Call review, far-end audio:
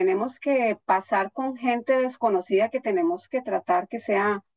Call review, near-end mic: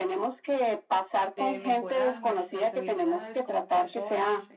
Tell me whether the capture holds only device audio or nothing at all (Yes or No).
No